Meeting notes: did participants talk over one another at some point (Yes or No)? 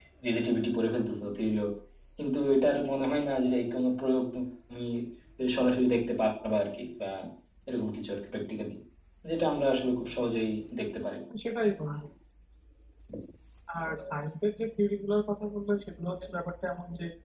No